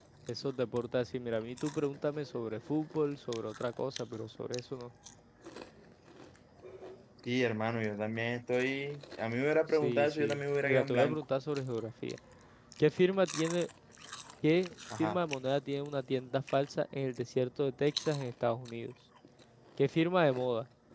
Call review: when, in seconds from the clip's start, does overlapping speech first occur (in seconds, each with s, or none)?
9.7 s